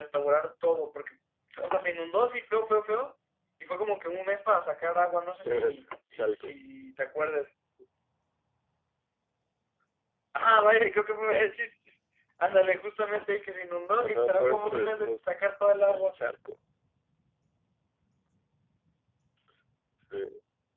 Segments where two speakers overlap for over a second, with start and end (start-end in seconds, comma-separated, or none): 14.0-15.2